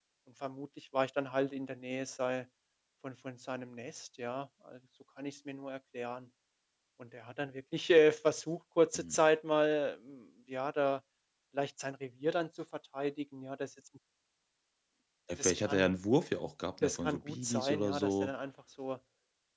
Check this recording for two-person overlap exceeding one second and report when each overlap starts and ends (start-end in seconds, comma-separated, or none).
16.8-18.3